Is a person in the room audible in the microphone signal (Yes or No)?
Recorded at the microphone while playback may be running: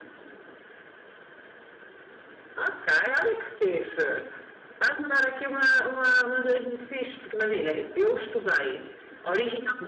No